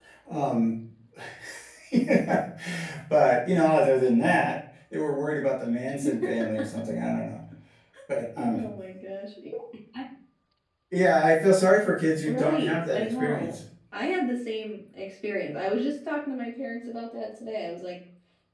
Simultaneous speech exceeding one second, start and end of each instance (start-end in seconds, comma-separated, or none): 12.2-13.5